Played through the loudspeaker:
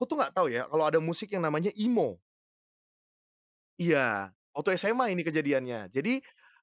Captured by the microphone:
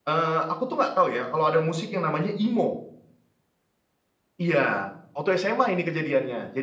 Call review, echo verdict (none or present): present